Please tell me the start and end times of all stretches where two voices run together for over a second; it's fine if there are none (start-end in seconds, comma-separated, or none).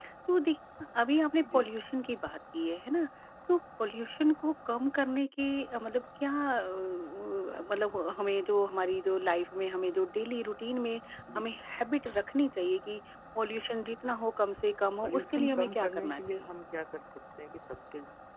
15.0-16.5